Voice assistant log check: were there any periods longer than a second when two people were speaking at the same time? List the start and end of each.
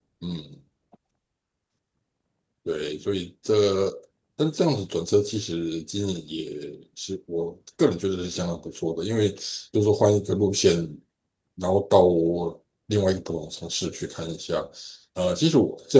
none

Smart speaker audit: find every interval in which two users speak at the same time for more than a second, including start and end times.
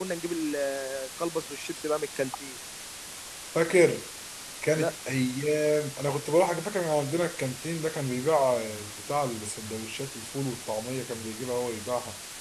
none

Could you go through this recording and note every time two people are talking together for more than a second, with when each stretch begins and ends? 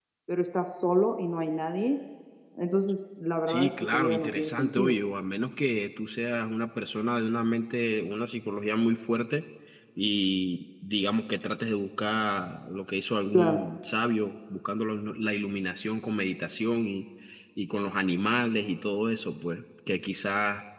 3.5-4.9

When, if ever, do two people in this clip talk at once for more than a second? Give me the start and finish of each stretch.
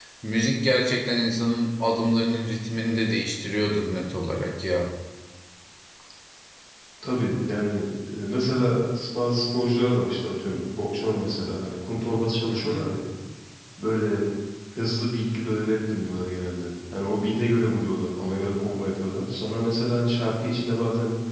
none

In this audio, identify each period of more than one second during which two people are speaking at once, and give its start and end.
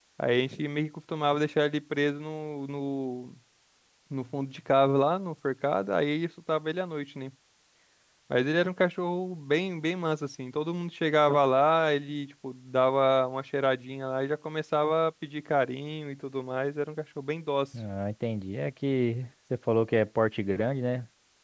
none

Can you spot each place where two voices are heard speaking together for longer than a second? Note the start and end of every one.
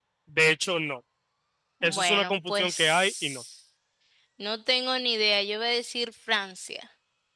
1.8-3.4

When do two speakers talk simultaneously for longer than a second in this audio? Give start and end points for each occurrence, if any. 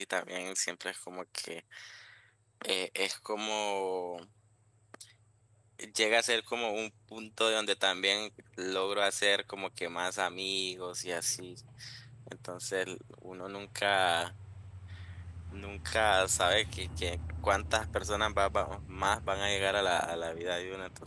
none

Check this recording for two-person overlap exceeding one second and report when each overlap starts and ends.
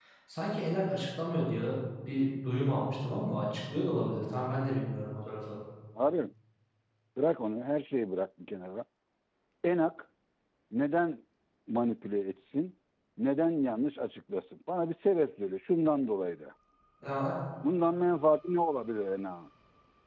none

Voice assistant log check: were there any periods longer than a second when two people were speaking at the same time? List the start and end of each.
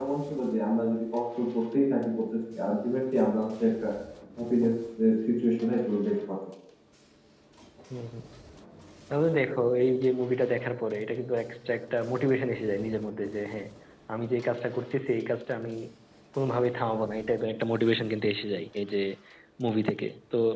none

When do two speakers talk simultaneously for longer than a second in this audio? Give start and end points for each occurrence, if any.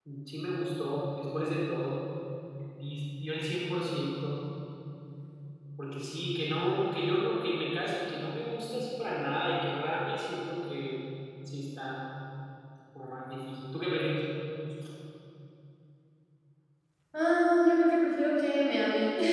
none

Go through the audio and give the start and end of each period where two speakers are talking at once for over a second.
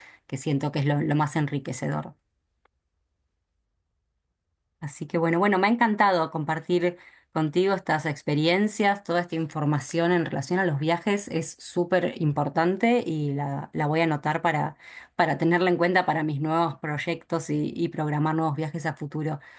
none

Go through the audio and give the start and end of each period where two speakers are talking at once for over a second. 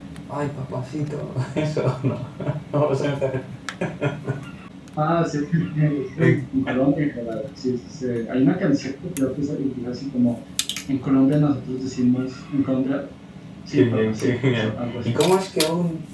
13.7-15.2

